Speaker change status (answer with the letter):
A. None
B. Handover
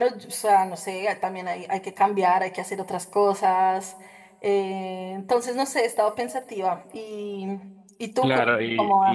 B